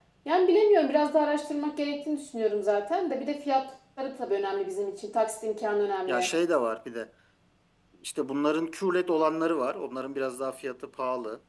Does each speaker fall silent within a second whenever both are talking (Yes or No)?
Yes